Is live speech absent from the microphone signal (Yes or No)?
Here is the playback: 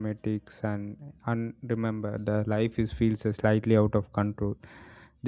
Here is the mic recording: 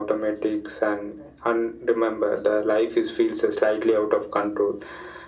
Yes